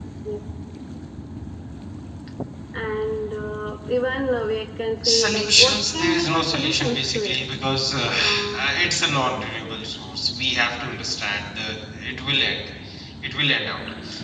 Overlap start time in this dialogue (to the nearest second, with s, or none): 5 s